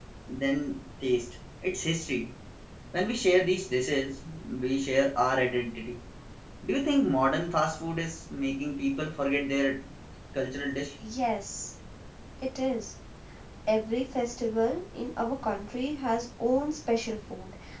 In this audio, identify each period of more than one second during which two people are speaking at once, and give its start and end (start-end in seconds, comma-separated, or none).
none